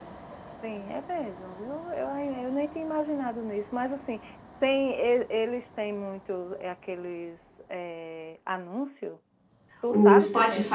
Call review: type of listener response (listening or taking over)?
taking over